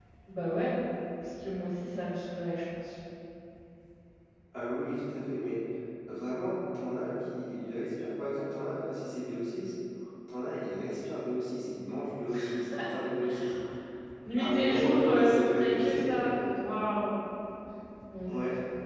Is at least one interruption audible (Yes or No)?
Yes